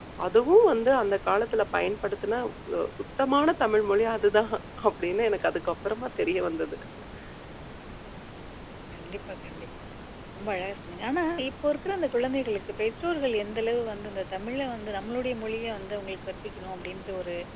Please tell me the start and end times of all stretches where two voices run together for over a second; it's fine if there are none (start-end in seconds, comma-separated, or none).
none